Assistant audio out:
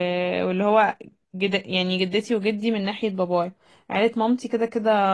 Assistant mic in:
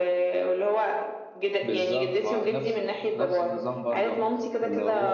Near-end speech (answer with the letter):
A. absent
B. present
B